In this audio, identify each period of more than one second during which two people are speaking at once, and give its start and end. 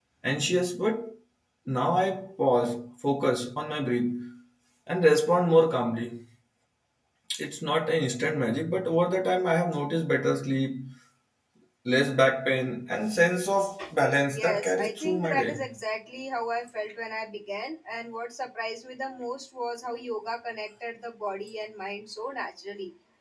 14.3-15.7

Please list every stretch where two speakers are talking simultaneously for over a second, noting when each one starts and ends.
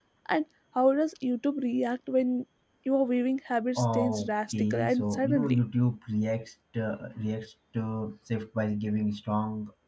3.8-5.6

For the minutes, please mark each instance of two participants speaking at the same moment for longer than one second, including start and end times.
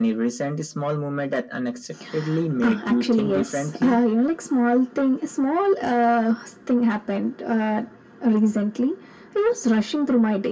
2.6-4.0

